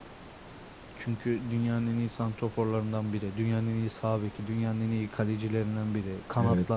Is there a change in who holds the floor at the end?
Yes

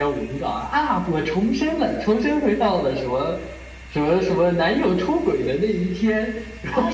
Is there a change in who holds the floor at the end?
Yes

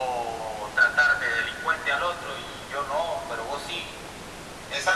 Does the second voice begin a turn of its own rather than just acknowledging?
Yes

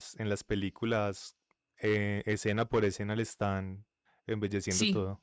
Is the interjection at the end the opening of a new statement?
Yes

